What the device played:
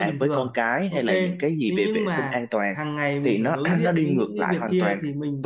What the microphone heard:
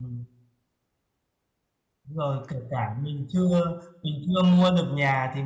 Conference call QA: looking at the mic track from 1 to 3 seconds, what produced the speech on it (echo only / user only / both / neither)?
user only